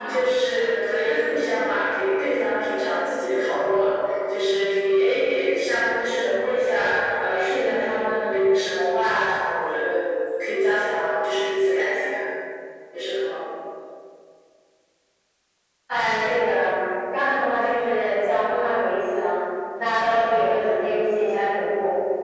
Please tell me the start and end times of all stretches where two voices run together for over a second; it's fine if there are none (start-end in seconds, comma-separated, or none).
none